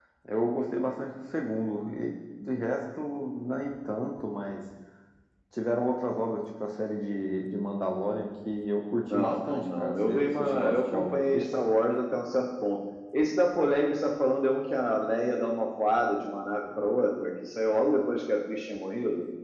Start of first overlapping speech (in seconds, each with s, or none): 9.0 s